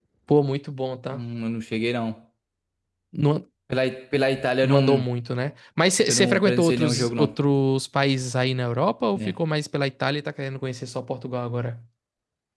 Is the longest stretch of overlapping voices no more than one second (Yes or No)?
No